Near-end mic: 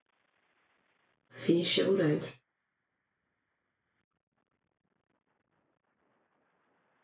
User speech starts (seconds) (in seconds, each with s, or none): 1.4 s